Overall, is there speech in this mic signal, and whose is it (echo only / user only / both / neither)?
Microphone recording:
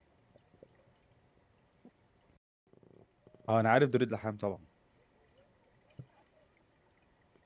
user only